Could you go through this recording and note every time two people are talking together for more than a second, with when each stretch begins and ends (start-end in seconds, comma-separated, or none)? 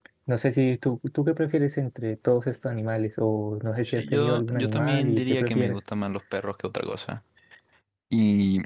3.8-5.8